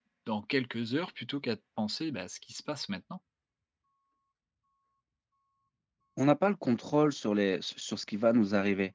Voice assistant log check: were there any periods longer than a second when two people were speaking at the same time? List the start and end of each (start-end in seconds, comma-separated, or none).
none